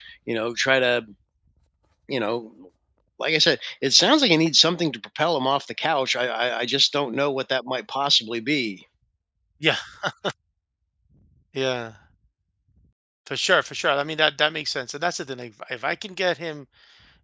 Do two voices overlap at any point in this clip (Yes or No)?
No